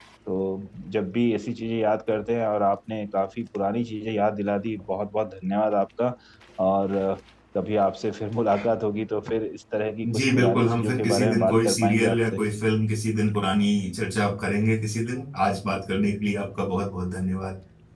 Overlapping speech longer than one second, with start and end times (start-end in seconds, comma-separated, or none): 10.1-12.4